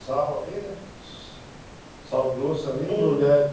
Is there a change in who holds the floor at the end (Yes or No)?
No